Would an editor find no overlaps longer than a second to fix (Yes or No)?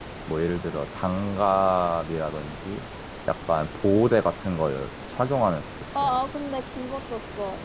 Yes